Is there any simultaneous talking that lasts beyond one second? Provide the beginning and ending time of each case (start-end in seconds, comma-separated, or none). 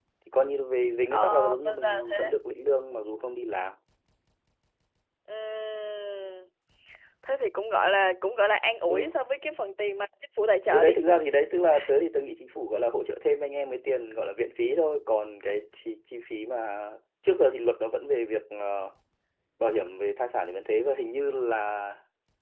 1.1-2.3